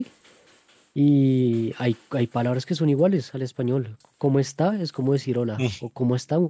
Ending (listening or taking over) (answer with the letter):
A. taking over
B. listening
B